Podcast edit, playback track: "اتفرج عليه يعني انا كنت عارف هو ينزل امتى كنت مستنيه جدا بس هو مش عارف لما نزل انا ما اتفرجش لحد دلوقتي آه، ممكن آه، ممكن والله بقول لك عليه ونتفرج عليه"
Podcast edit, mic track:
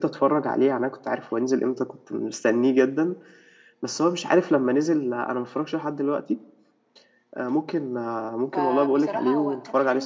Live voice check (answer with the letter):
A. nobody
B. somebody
B